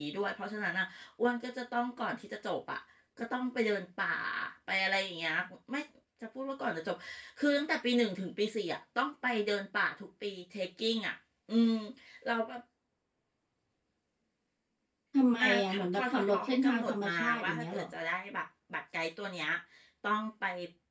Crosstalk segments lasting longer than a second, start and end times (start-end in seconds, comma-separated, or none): 15.4-17.8